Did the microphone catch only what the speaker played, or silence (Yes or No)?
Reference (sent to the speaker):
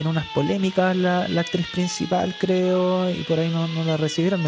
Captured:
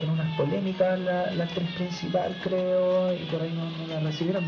Yes